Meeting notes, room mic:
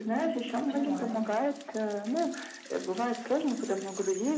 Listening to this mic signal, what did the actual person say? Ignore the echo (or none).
Понимаю.